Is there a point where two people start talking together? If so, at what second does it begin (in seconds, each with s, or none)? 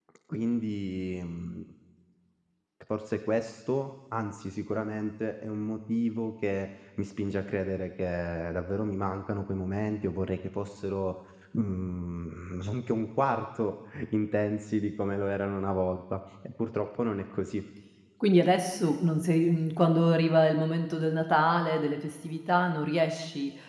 none